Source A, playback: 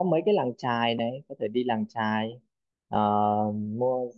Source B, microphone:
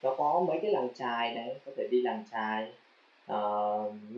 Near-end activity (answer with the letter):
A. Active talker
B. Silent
B